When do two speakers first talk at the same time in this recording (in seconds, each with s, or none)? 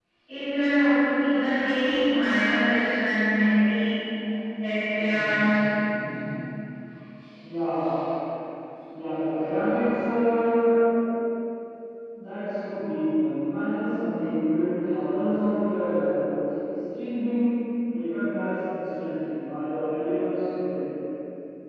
none